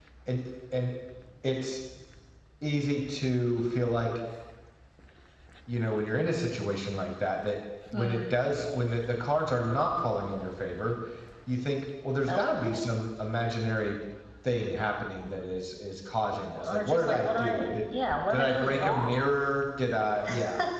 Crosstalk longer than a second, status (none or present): present